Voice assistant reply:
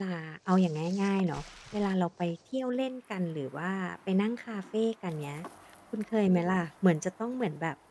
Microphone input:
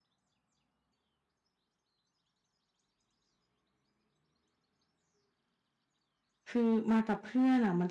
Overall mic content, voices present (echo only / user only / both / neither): user only